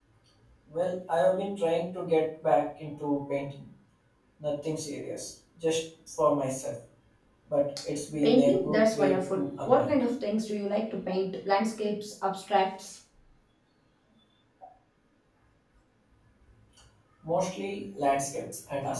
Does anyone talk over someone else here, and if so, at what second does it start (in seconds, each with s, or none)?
8.2 s